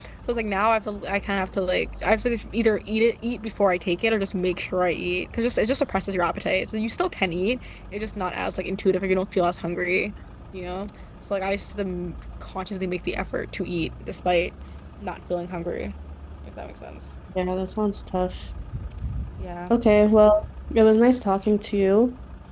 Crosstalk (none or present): none